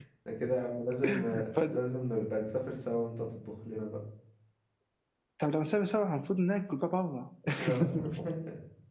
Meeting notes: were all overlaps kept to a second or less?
Yes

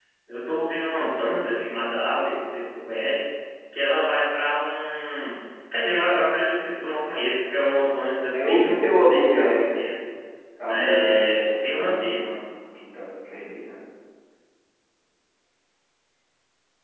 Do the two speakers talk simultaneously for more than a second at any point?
Yes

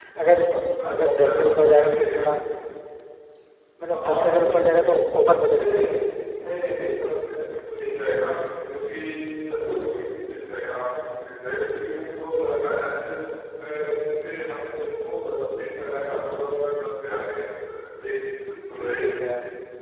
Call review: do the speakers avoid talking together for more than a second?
No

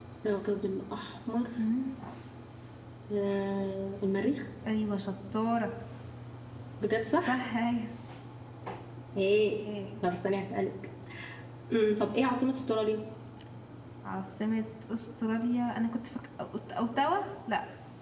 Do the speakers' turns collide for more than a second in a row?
No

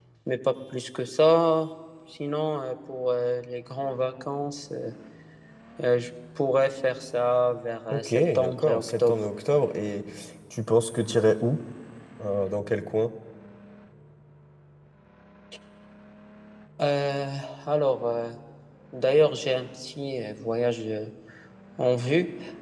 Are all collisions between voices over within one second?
No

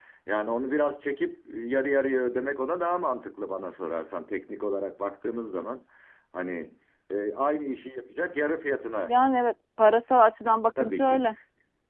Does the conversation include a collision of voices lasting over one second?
No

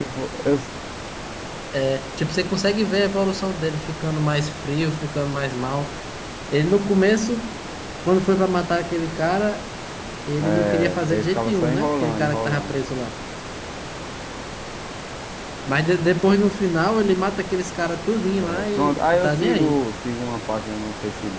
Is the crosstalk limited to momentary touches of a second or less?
No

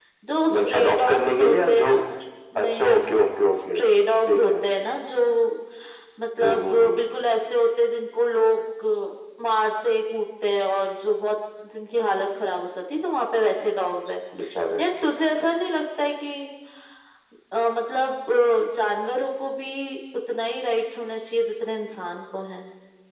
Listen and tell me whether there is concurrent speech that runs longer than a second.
Yes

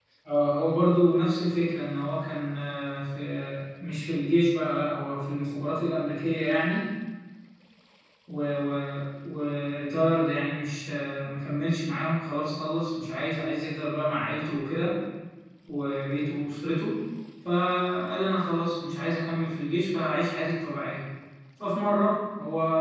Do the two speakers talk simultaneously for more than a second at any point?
No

